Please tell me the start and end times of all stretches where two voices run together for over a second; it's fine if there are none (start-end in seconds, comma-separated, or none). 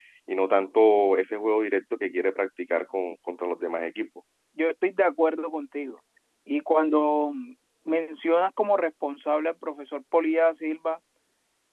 none